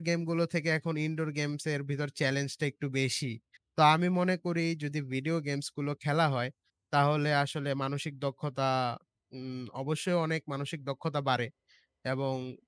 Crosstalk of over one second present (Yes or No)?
No